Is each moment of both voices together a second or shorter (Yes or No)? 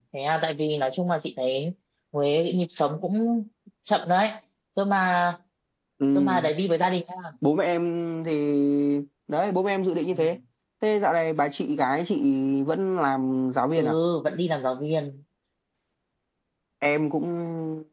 Yes